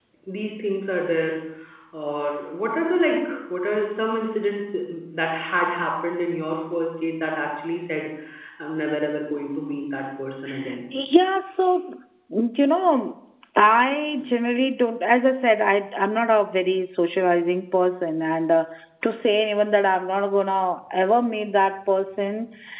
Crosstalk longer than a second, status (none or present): none